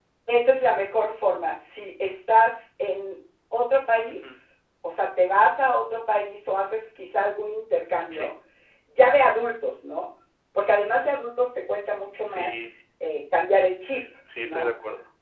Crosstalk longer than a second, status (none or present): none